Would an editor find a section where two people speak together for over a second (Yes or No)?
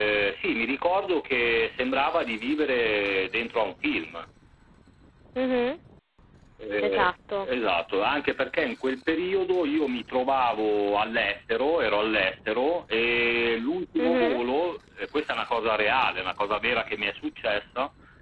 No